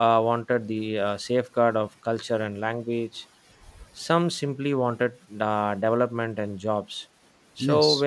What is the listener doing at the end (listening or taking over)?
listening